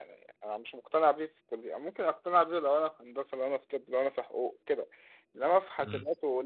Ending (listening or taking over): listening